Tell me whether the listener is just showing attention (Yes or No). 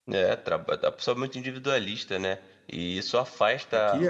Yes